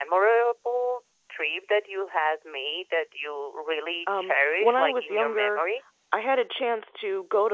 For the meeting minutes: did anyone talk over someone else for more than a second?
Yes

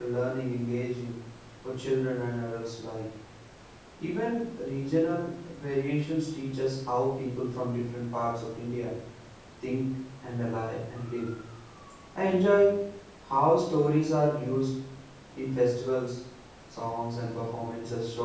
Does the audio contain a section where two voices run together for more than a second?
No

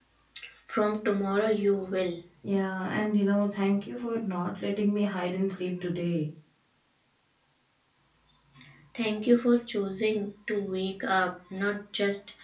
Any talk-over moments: No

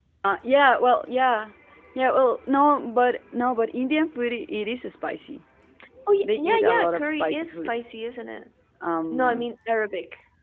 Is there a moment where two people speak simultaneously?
Yes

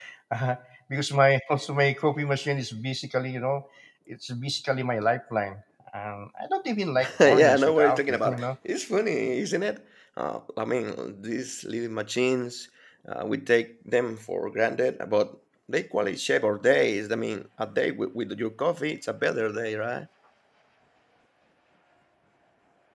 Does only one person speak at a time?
No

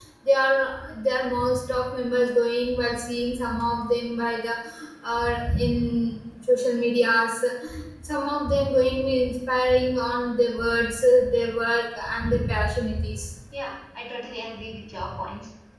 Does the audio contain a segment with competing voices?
No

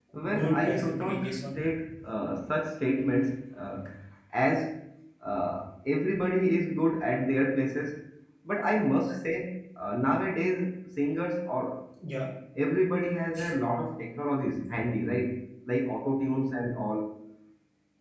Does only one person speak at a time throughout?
No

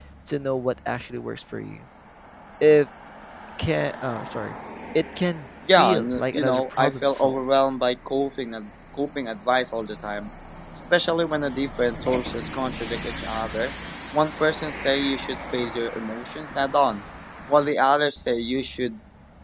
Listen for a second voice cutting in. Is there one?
Yes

